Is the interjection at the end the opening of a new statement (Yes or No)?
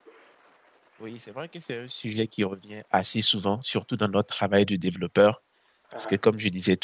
No